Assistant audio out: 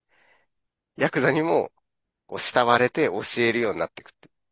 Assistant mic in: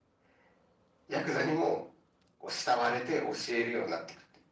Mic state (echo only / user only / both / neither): echo only